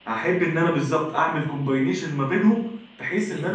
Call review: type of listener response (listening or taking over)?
listening